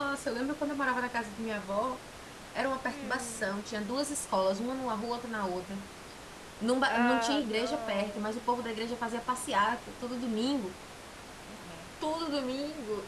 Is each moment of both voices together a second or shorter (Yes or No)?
No